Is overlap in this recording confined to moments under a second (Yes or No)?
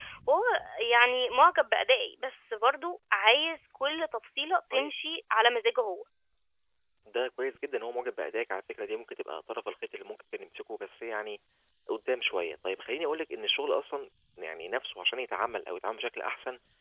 Yes